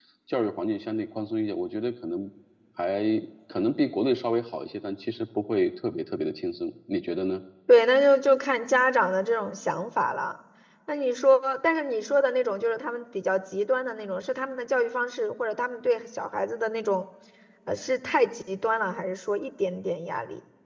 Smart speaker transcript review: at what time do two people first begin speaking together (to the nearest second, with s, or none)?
none